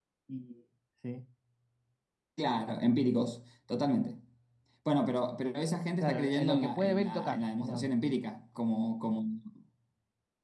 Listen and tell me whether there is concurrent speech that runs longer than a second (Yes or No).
Yes